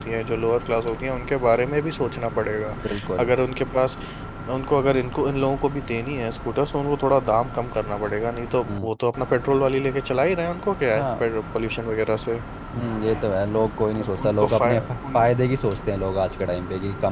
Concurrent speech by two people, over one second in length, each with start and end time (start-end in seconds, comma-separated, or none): 14.0-15.3